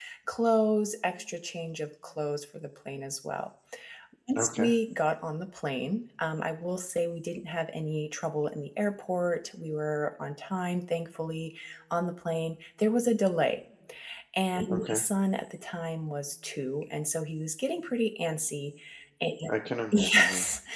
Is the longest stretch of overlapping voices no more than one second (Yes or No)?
Yes